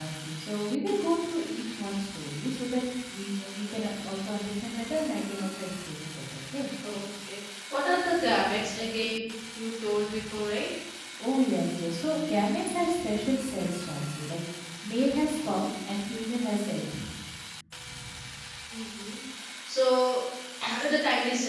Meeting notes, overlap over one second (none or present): none